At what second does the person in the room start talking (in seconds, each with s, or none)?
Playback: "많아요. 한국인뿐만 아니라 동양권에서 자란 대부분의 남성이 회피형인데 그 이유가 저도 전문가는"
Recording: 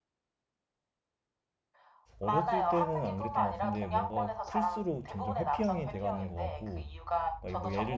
2.2 s